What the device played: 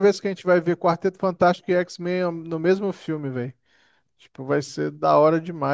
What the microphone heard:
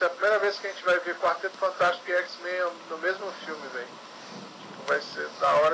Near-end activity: none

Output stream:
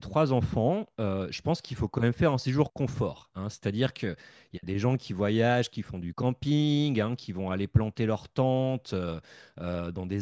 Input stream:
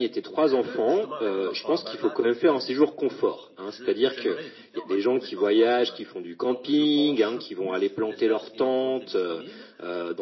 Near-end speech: present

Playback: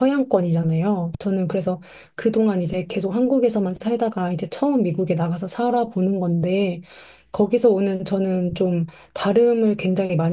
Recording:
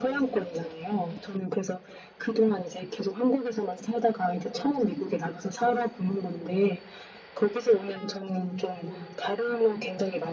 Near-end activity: none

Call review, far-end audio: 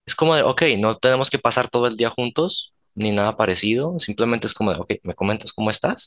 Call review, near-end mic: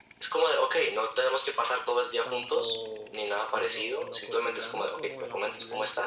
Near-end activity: present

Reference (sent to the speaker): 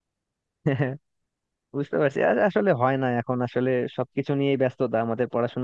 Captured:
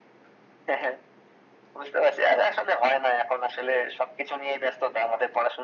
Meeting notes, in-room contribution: none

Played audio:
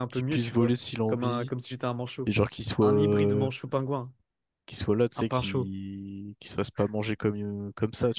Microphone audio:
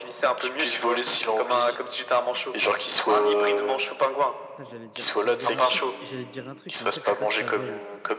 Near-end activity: present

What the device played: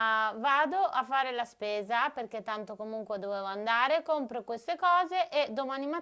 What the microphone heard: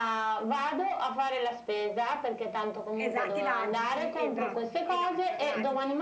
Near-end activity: present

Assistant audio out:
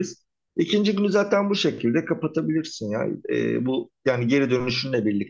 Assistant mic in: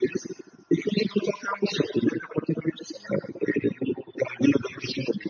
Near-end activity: none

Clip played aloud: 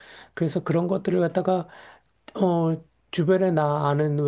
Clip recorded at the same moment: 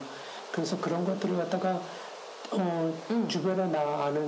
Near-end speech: present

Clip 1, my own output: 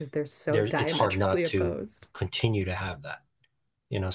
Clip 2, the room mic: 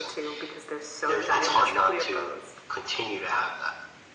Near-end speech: none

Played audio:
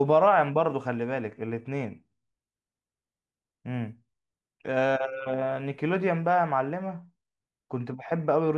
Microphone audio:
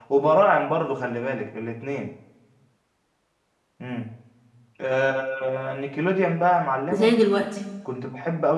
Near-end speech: present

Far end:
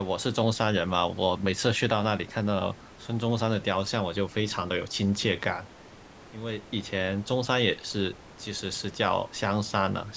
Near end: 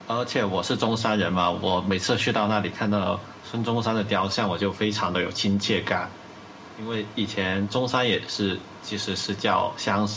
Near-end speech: none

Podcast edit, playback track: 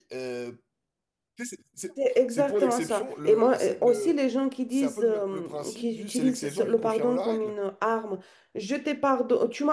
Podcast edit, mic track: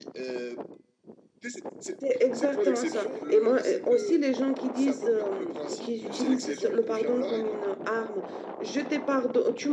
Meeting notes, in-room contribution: none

